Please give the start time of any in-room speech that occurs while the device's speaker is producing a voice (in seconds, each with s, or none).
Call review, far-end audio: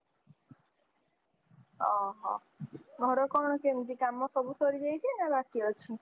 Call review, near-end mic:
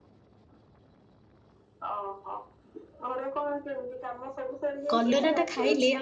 4.9 s